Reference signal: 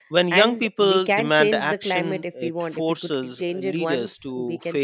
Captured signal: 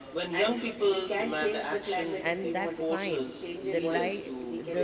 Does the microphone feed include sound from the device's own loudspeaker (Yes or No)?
Yes